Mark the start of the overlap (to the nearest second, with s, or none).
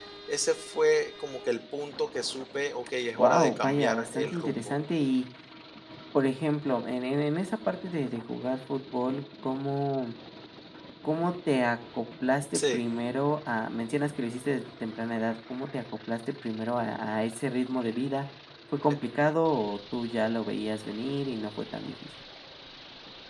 3 s